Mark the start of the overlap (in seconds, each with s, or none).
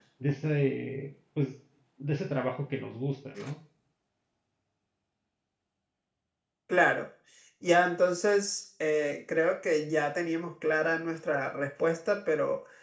none